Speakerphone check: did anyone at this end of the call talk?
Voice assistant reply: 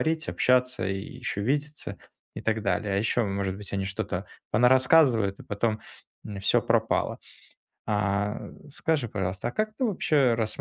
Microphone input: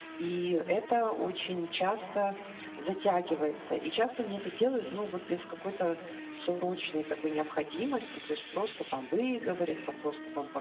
Yes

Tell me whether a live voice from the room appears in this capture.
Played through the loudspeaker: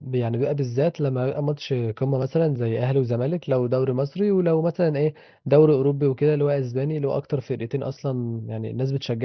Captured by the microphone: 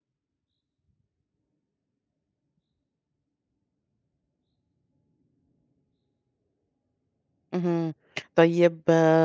Yes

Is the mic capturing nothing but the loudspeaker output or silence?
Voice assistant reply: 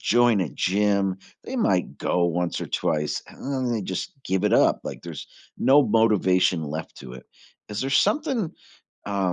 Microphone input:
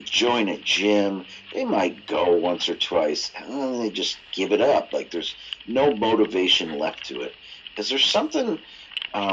Yes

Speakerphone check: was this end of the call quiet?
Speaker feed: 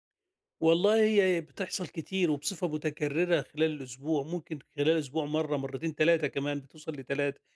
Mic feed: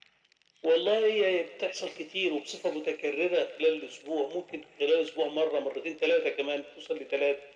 Yes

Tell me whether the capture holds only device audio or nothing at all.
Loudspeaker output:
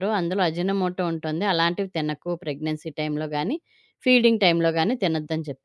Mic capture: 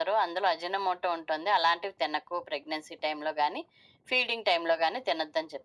Yes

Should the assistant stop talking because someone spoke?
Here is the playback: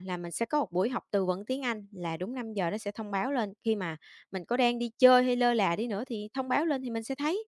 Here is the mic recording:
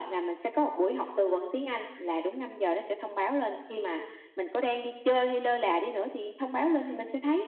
No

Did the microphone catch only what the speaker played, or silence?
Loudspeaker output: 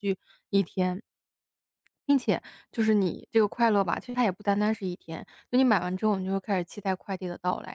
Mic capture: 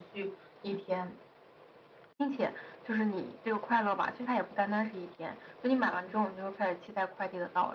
Yes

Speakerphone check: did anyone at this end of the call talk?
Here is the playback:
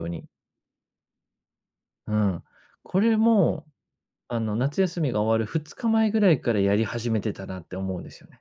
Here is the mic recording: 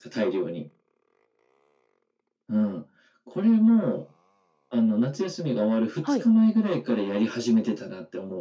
Yes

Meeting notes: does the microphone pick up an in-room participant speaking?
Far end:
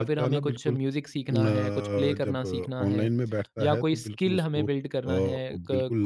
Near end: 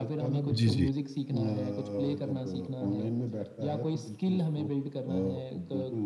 Yes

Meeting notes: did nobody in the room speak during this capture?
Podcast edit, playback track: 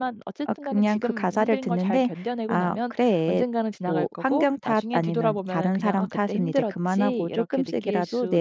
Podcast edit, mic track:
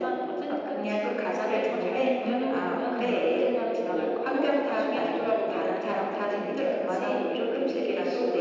No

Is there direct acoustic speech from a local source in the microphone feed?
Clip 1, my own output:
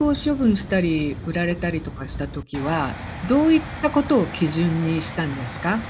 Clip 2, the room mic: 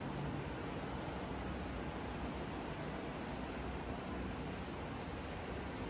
No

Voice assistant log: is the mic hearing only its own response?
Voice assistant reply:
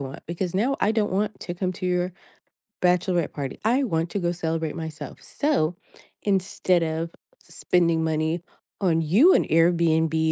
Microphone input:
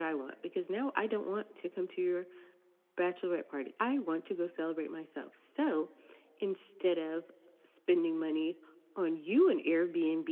Yes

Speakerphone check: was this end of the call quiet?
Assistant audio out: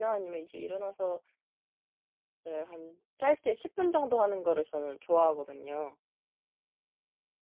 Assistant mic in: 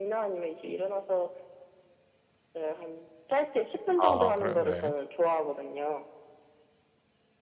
No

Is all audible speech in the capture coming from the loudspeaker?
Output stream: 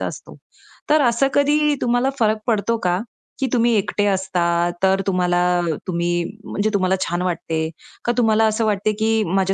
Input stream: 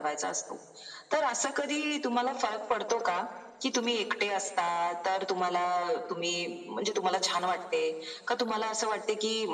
Yes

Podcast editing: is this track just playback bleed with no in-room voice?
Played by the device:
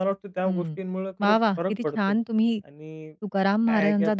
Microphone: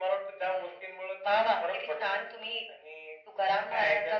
Yes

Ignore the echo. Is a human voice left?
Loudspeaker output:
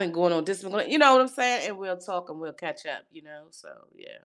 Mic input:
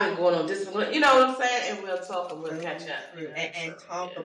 Yes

